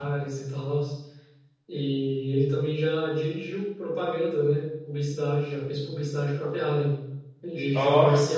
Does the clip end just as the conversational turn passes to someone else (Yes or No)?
No